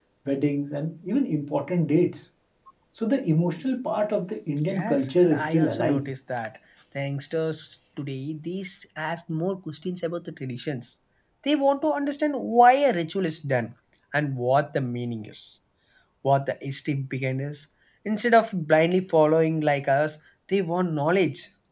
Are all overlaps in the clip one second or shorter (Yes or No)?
No